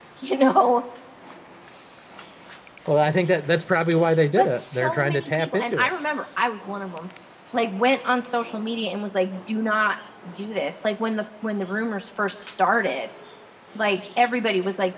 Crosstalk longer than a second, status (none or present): present